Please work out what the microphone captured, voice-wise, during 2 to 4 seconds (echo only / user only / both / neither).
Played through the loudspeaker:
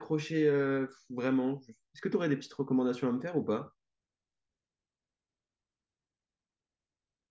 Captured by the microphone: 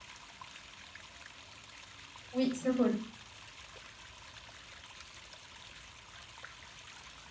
user only